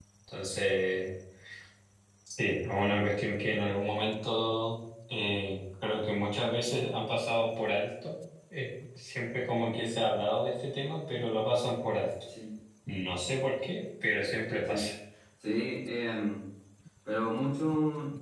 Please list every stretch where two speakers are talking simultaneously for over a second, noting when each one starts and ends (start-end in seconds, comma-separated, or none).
none